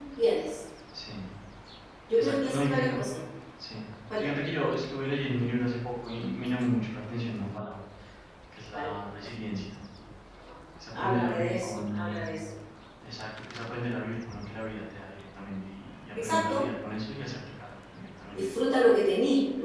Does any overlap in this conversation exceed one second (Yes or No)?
Yes